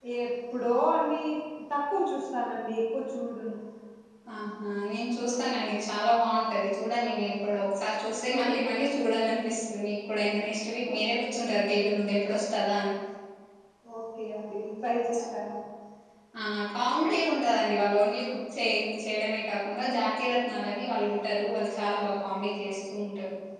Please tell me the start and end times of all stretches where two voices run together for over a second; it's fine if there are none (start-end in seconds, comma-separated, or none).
none